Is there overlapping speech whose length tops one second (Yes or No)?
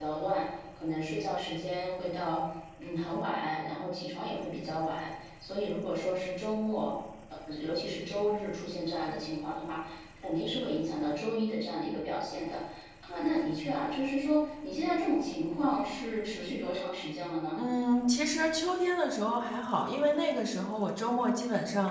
No